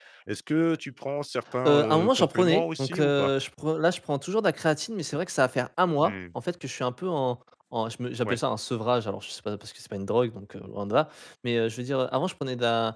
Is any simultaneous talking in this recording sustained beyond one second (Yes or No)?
Yes